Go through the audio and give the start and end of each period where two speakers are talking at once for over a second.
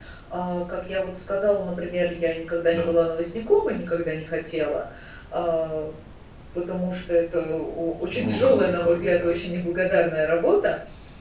8.1-9.3

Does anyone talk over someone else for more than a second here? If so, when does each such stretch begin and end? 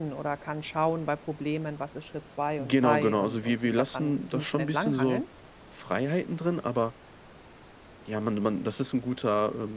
2.6-5.2

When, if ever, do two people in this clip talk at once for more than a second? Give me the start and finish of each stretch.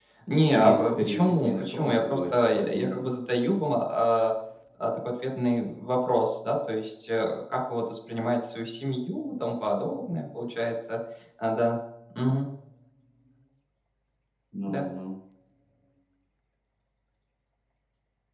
0.5-3.0

